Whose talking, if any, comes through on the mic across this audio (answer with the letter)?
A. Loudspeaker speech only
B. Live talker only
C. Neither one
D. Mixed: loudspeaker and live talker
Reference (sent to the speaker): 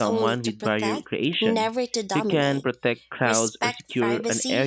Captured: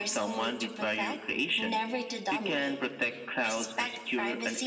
A